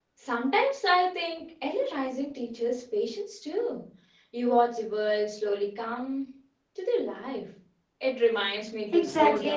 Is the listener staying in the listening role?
No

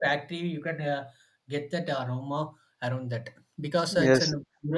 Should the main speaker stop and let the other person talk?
Yes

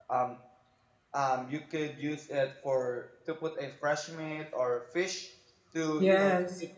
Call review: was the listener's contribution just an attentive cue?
Yes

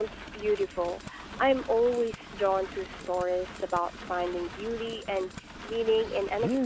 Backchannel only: No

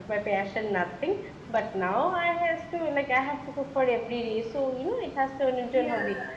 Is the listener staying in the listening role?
Yes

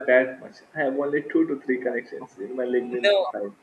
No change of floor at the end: No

